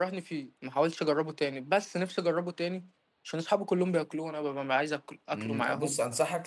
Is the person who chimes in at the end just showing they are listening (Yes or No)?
No